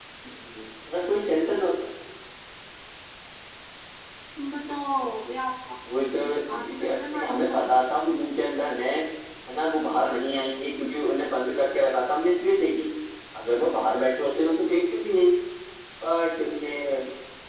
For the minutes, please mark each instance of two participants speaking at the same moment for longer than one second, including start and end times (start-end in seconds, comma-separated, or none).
6.0-7.8